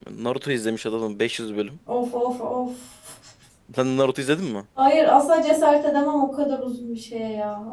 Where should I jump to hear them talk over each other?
none

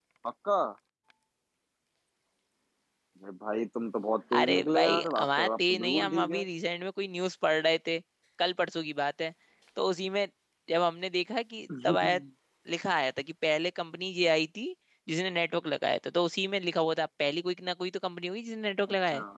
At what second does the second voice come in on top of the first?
4.4 s

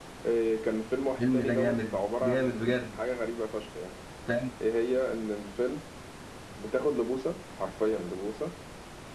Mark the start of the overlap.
1.2 s

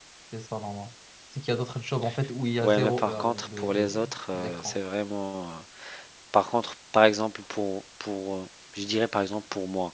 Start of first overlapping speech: 2.6 s

